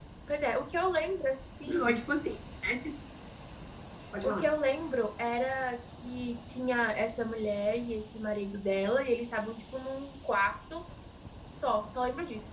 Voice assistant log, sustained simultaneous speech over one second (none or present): none